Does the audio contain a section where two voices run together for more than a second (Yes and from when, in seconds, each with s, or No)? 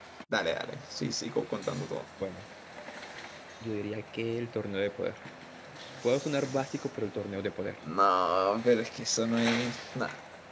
No